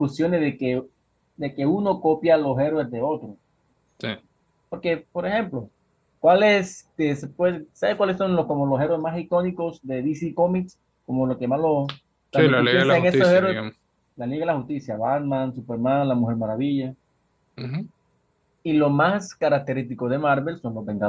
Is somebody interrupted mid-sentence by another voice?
Yes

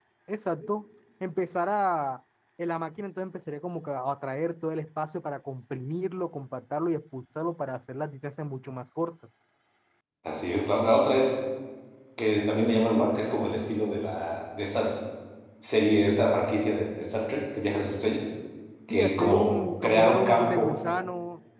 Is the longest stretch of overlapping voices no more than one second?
No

